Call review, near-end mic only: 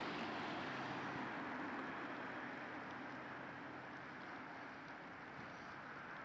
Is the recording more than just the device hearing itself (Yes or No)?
No